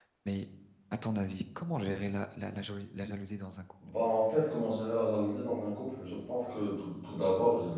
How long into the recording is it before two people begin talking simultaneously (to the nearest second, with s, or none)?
none